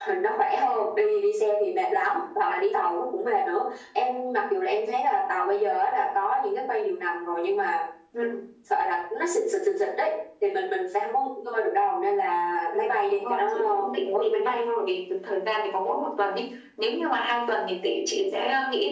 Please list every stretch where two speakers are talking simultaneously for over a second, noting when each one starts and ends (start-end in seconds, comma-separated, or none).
12.7-14.5